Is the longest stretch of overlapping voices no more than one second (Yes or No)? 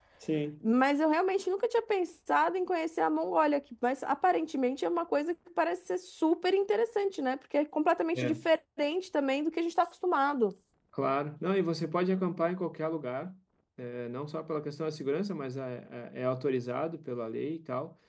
Yes